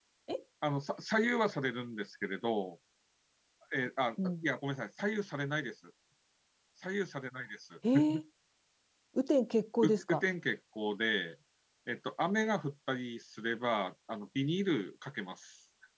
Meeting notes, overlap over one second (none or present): none